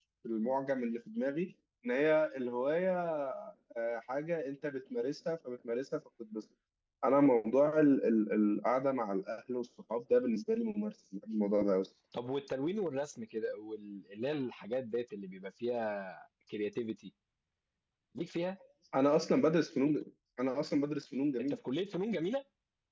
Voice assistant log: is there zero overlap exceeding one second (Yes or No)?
Yes